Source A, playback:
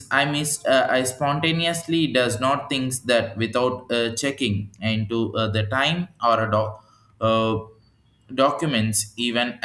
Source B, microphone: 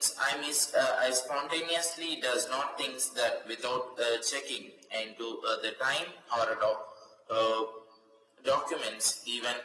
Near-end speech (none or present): none